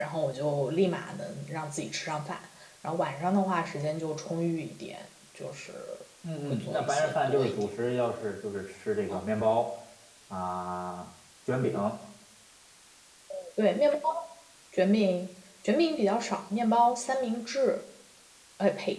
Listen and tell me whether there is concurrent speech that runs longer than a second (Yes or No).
Yes